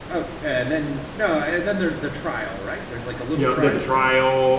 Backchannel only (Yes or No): No